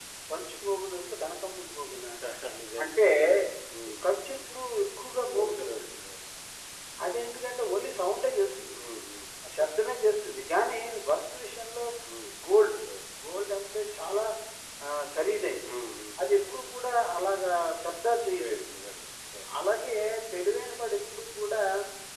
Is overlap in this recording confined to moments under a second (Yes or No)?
Yes